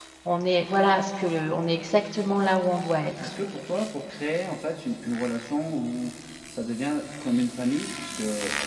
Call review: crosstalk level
none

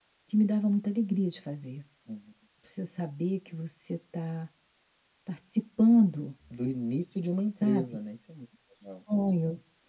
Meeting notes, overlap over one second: none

